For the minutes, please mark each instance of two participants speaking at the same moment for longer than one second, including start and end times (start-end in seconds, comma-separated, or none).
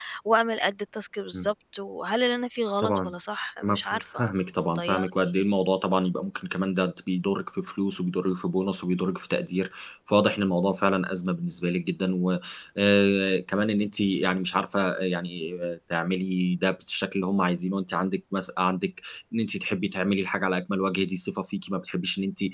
3.6-5.3